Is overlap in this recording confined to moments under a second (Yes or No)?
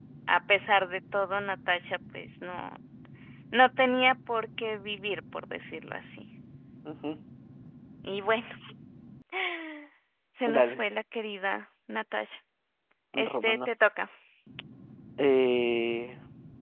Yes